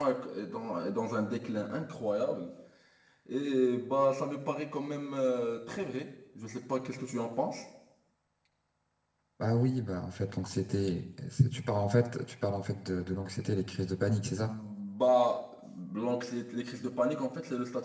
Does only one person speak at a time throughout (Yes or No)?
Yes